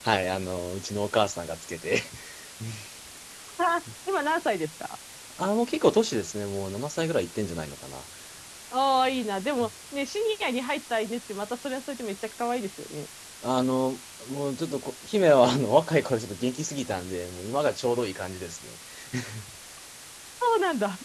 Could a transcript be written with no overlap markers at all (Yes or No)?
Yes